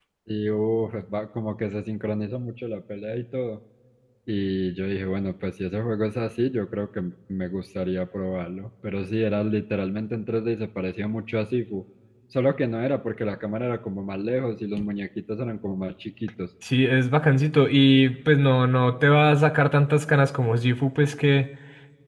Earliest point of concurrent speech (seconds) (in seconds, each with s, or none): none